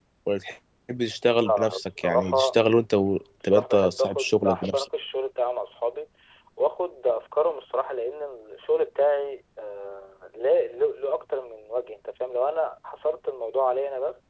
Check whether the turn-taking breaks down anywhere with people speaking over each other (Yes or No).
Yes